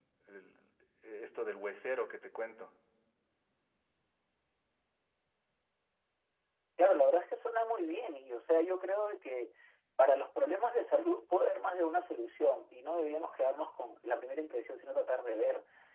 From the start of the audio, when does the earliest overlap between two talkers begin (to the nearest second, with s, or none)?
none